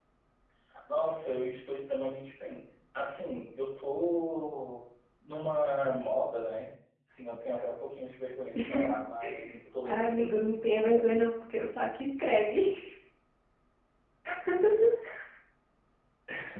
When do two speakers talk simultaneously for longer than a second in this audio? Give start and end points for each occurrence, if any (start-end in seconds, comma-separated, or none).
9.9-11.2